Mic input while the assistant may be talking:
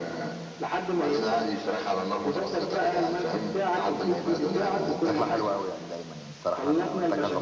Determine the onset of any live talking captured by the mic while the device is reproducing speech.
4.4 s

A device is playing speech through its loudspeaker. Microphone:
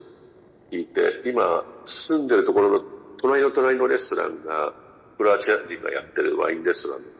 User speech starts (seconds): none

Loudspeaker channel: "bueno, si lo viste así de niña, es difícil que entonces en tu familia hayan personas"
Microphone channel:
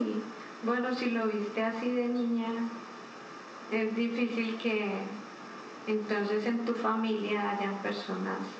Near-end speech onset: none

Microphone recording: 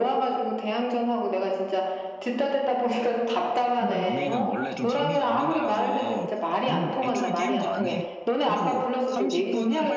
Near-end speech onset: 3.8 s

